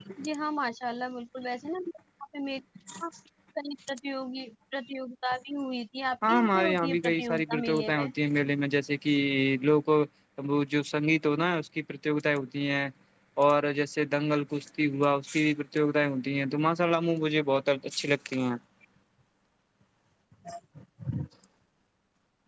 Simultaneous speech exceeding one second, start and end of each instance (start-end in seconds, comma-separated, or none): 6.3-8.1